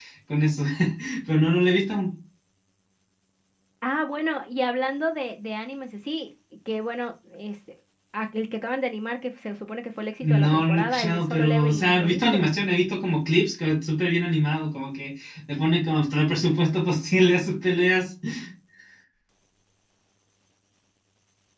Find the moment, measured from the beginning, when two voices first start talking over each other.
10.2 s

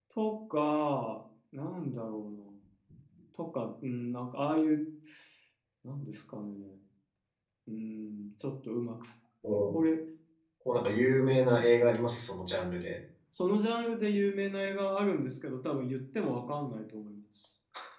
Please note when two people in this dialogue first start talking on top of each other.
none

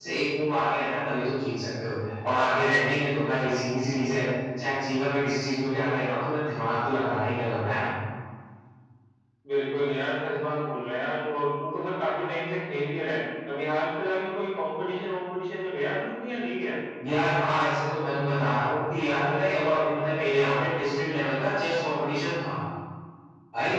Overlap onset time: none

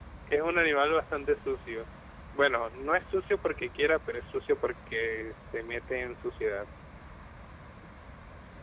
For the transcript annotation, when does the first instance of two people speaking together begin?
none

